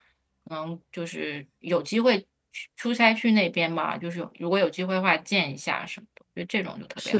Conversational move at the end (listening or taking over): taking over